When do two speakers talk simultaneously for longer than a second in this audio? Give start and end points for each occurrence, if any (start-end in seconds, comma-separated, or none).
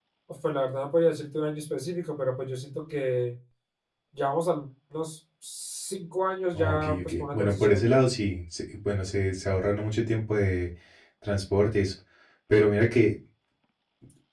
6.6-7.9